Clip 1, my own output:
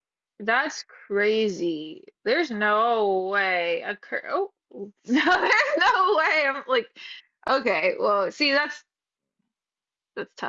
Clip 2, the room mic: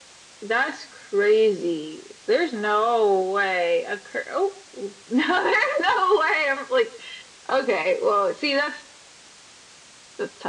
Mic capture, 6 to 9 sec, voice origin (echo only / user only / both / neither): echo only